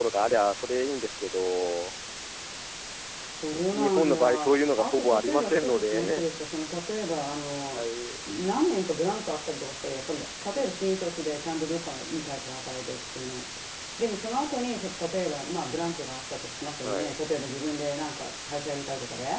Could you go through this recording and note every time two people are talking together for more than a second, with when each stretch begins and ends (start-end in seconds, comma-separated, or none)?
3.7-6.2